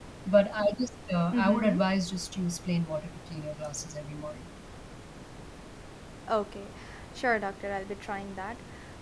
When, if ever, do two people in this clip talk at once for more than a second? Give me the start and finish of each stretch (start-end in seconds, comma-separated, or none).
none